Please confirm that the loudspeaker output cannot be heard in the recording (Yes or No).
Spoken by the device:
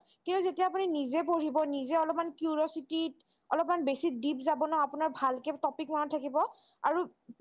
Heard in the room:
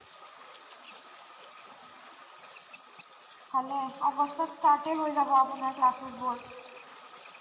Yes